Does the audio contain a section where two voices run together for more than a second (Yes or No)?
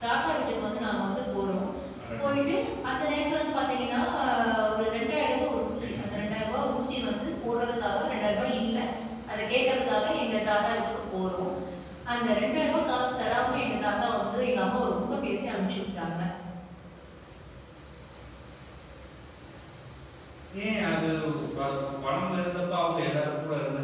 No